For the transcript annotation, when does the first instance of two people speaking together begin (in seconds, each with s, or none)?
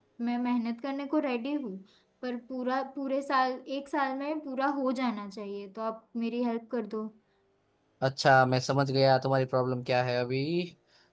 none